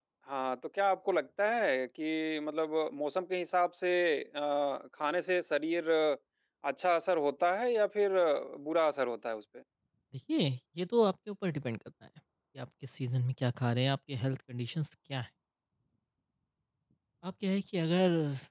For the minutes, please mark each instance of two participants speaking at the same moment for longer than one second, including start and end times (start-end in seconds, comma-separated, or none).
none